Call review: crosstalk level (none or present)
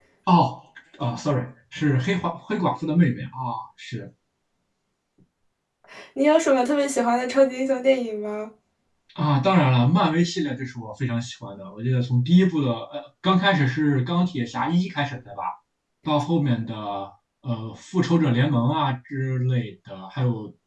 none